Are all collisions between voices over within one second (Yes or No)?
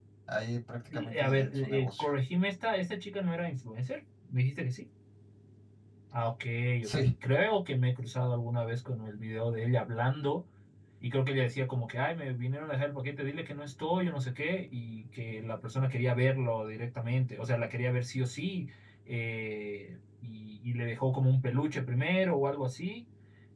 No